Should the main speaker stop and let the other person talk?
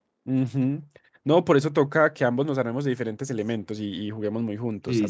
Yes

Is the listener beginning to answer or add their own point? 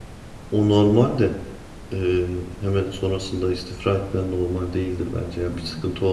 No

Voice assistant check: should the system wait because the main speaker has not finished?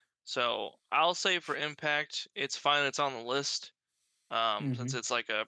Yes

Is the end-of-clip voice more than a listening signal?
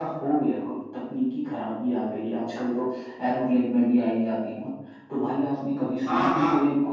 No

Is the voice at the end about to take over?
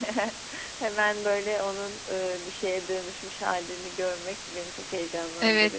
Yes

